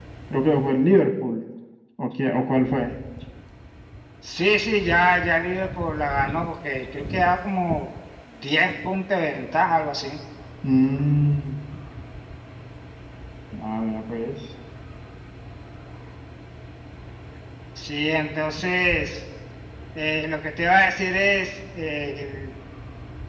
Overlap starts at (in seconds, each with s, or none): none